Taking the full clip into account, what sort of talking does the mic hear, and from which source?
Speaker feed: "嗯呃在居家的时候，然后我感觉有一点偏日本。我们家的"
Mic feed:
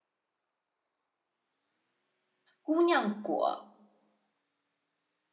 user only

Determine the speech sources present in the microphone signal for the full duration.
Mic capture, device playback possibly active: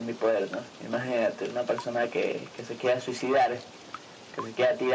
echo only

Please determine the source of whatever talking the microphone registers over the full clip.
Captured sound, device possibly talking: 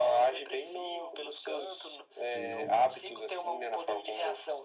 both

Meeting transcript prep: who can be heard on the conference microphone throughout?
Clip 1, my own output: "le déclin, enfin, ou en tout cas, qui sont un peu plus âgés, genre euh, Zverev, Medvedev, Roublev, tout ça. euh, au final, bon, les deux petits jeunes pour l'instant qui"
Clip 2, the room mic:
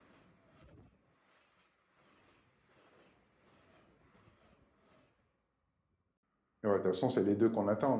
user only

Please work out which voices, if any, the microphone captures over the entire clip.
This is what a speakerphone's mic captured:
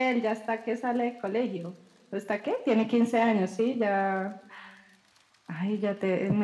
echo only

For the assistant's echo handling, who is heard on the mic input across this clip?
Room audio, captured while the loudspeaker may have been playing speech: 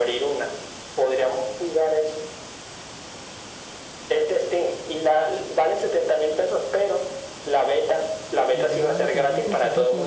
both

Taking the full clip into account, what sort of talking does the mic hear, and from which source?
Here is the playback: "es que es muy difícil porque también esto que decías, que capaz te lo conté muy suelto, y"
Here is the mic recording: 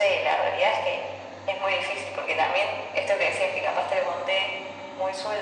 echo only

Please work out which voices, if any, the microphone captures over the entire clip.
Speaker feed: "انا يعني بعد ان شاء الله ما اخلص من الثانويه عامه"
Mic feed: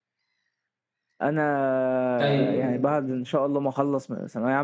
both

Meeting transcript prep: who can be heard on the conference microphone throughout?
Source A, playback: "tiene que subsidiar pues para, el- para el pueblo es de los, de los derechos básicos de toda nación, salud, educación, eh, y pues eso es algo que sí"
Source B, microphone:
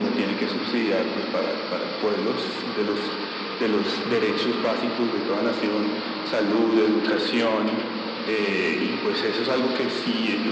echo only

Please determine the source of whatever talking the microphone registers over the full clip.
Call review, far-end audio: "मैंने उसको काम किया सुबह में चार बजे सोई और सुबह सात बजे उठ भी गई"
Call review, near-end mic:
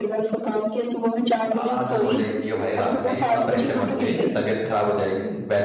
both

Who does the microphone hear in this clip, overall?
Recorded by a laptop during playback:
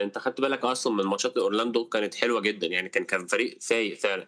echo only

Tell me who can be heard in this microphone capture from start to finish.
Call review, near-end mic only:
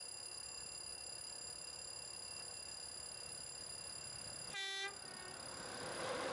neither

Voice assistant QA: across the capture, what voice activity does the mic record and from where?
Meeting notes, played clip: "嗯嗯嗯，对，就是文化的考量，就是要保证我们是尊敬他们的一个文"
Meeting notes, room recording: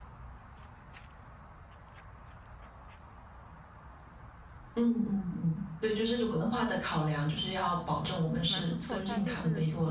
both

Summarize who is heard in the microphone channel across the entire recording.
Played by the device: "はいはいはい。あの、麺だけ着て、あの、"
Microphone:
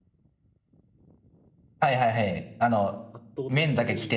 both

